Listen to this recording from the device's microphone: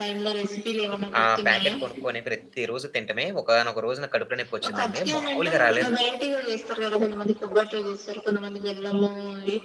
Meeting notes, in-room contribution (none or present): present